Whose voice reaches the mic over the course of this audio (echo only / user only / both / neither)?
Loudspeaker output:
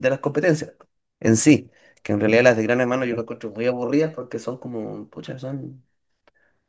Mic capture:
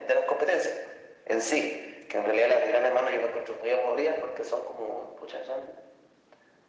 echo only